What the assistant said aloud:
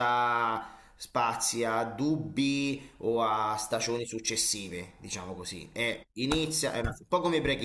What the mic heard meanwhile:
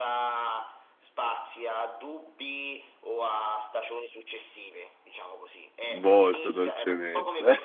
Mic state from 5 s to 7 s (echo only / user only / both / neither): both